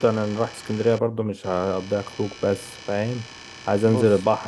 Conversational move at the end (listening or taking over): listening